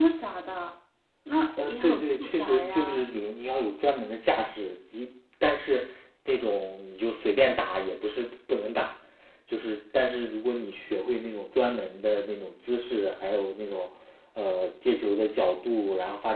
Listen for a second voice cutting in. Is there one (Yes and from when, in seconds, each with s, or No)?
Yes, from 1.7 s